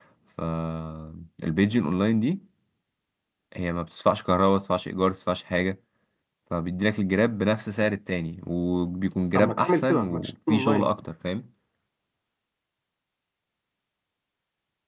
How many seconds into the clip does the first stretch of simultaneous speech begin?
9.3 s

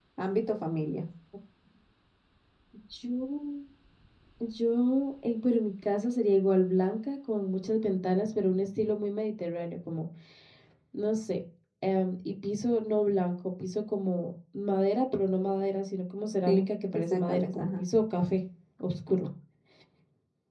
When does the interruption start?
16.5 s

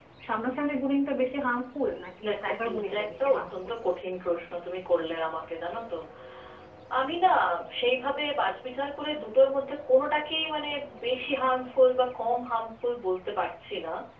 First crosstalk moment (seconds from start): 2.2 s

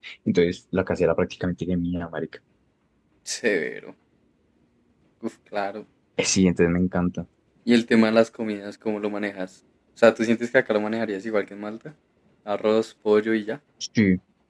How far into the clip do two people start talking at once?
none

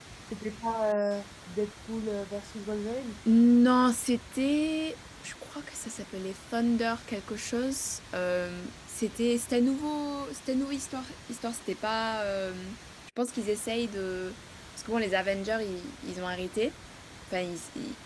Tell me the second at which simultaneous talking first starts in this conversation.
none

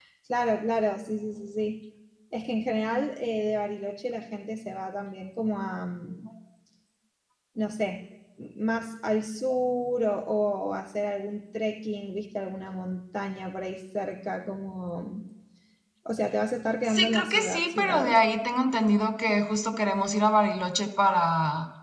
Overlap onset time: 16.9 s

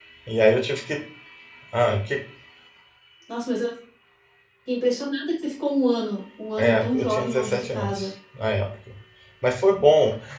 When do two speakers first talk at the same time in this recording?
6.6 s

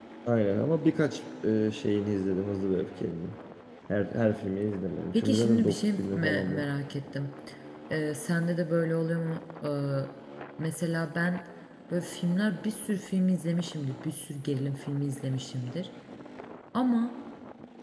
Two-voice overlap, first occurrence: 5.1 s

